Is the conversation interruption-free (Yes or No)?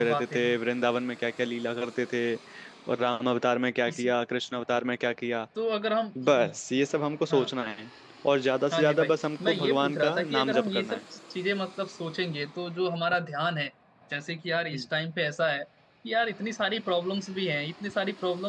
No